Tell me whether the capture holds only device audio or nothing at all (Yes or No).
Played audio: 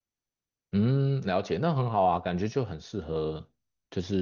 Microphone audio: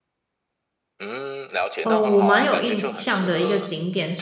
No